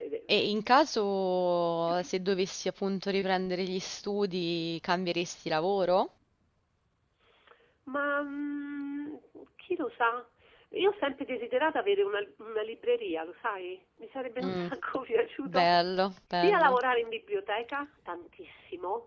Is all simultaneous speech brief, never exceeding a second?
Yes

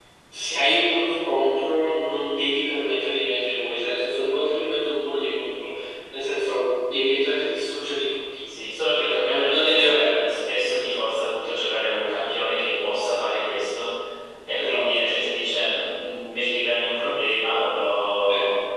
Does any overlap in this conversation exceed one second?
Yes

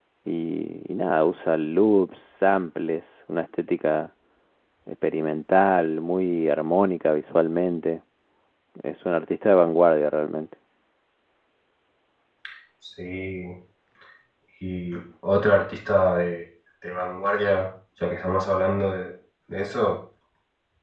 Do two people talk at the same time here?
No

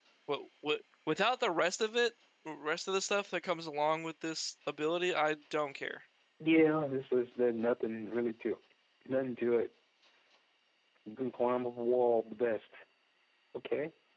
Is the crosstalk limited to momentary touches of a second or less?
Yes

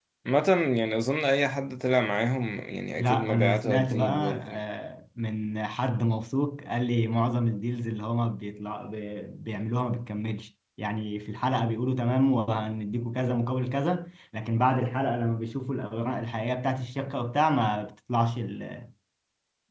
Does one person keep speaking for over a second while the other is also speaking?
Yes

